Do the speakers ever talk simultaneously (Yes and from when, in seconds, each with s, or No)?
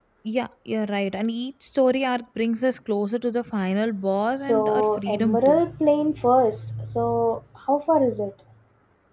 Yes, from 4.4 s